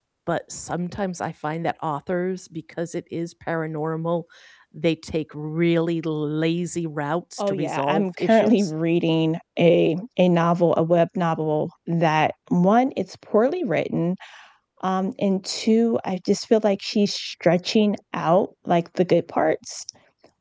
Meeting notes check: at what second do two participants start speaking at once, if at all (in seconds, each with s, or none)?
7.4 s